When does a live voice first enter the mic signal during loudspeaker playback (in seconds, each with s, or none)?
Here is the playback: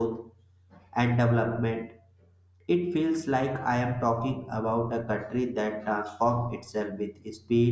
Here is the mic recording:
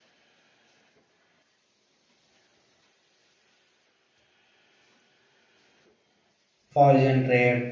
6.7 s